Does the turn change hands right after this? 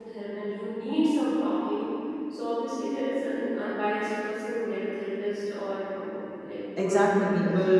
Yes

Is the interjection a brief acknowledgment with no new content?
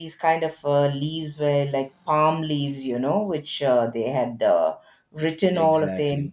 Yes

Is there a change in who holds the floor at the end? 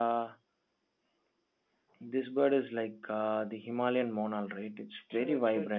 Yes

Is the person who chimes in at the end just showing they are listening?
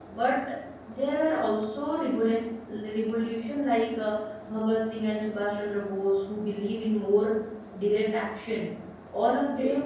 Yes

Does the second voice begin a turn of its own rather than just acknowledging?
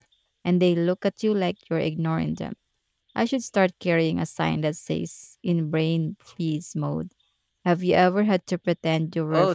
Yes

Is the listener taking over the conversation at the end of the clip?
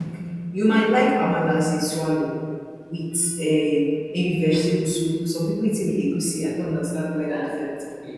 Yes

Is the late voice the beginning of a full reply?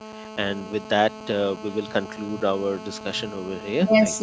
Yes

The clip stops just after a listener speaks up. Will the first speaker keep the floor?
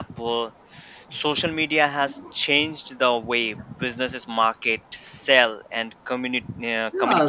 No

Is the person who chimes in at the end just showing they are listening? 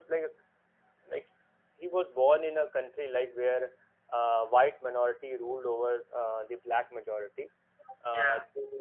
Yes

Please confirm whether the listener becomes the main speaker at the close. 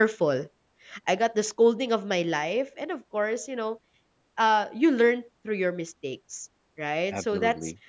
No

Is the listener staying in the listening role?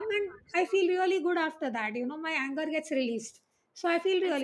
No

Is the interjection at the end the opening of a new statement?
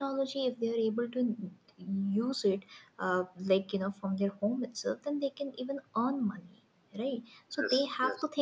No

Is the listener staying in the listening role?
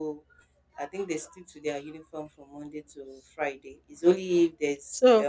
No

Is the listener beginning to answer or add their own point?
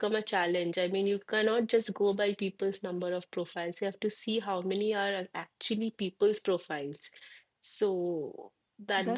Yes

